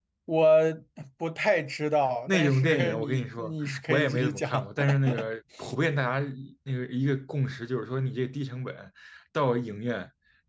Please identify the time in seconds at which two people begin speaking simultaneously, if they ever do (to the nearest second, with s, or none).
2 s